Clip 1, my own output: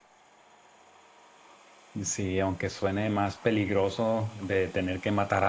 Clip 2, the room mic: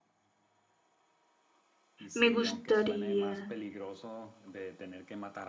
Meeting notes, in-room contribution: present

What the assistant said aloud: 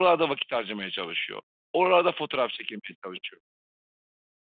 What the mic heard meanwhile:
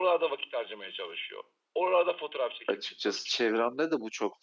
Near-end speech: present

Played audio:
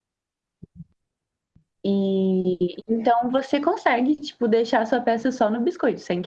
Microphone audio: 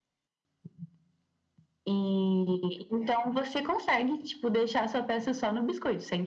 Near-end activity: none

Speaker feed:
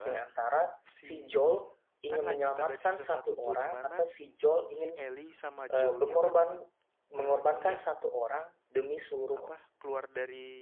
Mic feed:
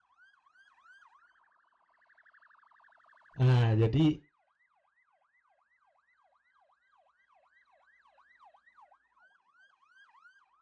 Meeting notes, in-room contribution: present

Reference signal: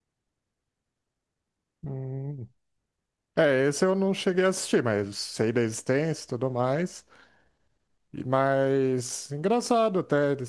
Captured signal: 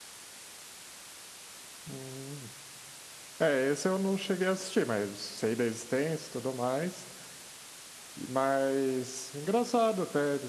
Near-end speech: none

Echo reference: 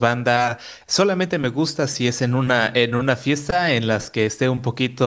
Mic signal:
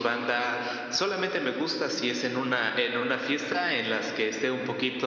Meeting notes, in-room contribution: none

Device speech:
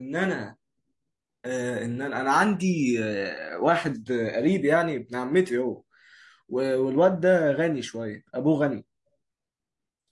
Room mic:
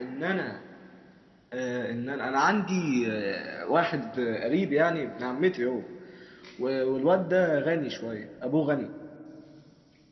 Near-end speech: none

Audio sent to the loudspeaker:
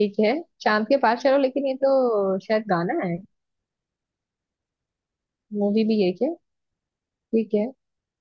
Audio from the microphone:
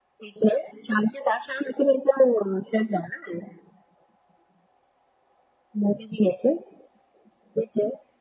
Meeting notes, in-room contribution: none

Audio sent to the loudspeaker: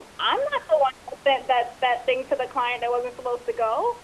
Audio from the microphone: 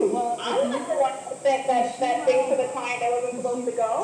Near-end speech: present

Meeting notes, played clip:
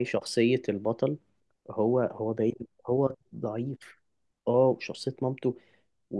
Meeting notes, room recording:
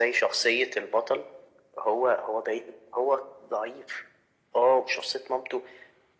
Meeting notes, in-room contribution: none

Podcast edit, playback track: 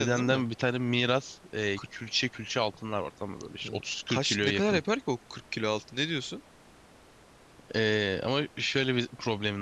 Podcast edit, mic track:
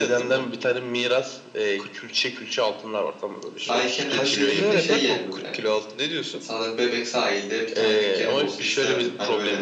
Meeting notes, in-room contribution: present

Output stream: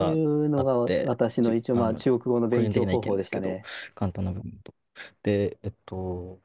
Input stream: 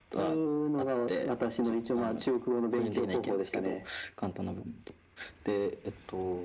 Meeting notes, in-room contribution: none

